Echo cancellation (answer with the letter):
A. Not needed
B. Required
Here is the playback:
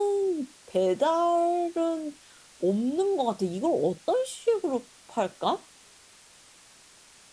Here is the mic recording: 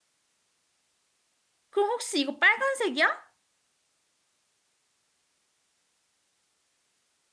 A